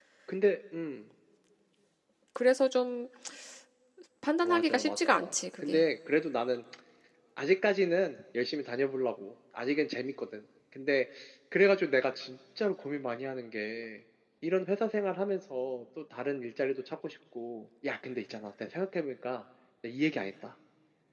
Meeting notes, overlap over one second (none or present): present